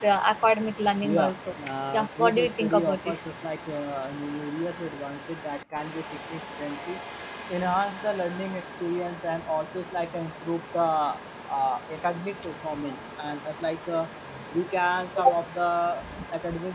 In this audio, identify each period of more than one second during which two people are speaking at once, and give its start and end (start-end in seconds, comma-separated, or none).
1.9-3.2